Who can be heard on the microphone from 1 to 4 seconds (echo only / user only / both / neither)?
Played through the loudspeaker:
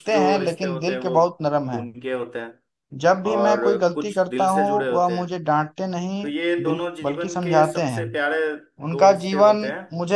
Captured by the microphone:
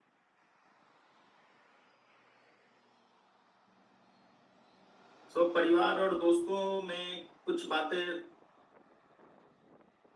neither